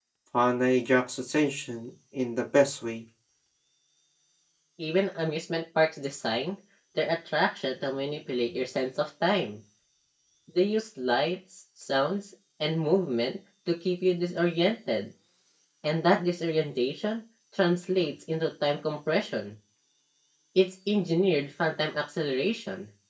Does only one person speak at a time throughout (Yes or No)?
Yes